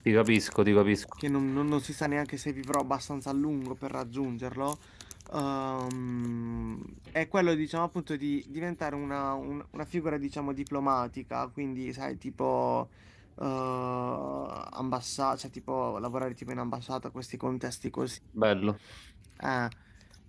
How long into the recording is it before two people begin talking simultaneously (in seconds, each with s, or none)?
none